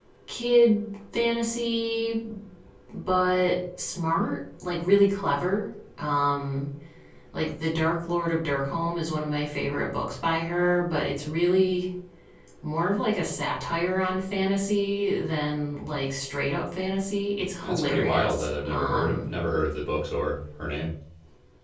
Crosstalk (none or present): present